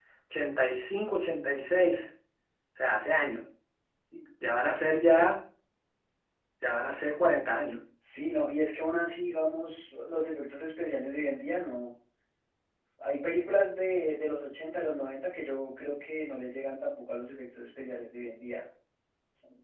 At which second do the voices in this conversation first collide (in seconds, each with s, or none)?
none